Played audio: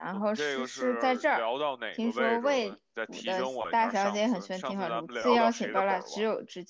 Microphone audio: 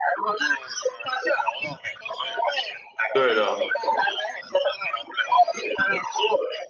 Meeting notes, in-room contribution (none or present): present